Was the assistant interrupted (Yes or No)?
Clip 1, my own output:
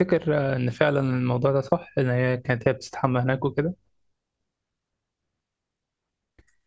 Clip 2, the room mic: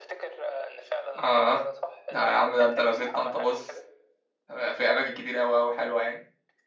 Yes